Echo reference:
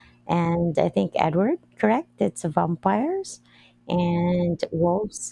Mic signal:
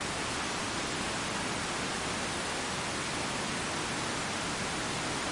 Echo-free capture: Yes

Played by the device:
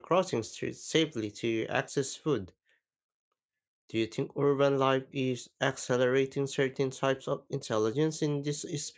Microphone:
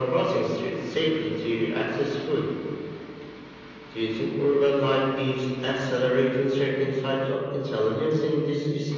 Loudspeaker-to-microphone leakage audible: Yes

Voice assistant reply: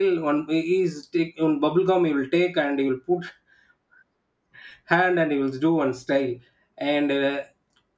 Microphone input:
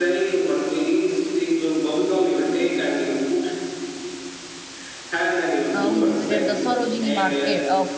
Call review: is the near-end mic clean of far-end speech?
No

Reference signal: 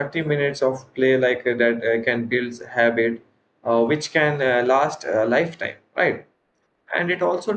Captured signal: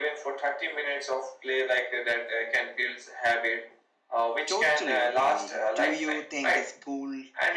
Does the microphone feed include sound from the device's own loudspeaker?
Yes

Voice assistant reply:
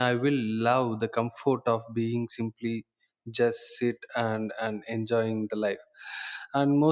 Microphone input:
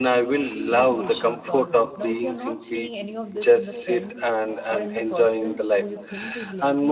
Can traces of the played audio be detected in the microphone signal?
Yes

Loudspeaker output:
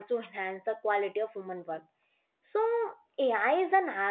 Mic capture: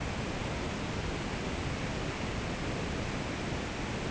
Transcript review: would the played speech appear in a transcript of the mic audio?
No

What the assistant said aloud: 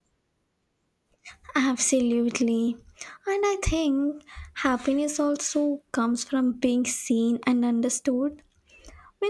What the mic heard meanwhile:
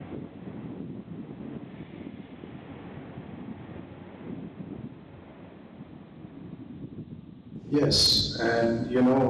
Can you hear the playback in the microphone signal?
No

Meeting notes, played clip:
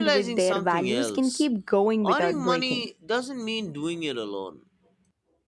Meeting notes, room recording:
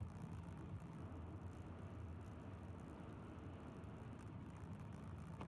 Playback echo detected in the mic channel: No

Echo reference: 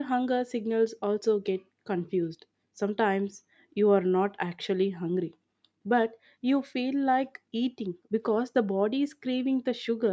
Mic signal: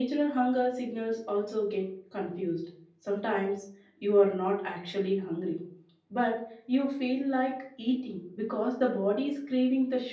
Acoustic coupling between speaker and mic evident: Yes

